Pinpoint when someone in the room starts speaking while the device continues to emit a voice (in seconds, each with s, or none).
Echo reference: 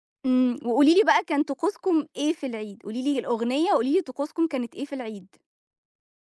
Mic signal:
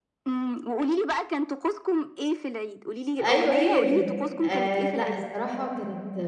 3.2 s